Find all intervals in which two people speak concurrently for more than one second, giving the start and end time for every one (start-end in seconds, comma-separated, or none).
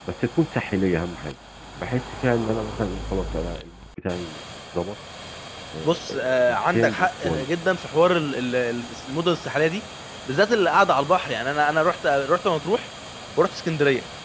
5.8-7.5